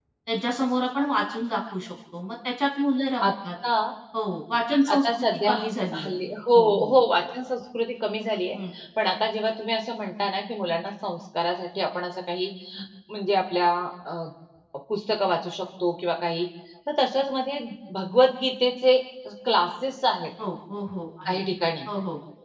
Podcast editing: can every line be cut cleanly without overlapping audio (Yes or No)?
No